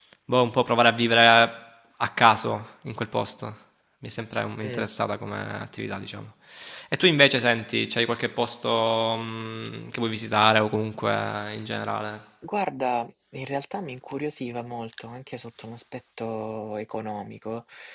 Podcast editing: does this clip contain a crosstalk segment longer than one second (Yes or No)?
No